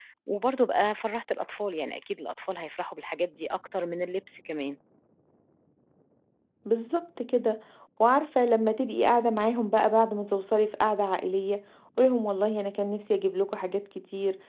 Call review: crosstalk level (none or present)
none